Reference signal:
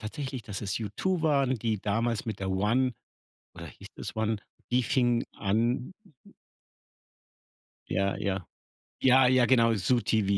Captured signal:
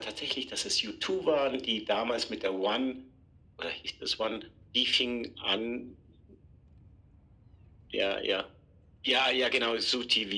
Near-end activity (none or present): none